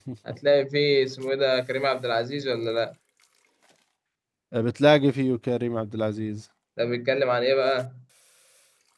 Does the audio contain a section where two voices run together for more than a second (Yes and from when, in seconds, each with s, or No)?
No